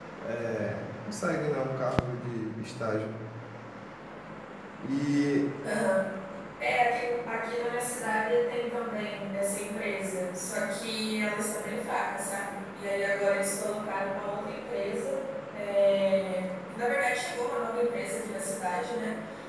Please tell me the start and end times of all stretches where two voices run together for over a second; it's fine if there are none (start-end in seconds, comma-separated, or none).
none